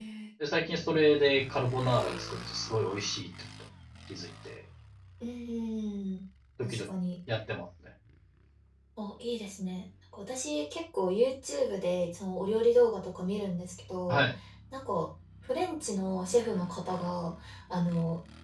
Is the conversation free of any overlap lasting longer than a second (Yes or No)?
Yes